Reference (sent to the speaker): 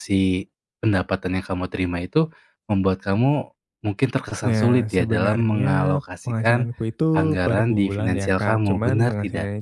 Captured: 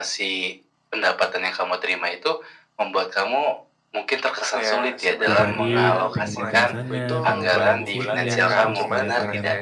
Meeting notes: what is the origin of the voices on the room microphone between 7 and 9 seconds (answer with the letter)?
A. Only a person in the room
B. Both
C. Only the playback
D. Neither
B